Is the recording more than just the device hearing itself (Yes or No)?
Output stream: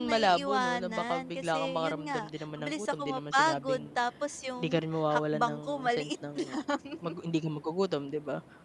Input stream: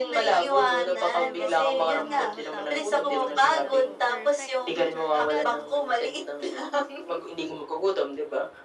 Yes